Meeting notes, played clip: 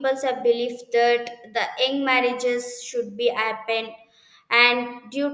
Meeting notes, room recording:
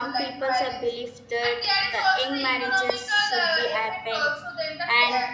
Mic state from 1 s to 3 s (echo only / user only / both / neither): both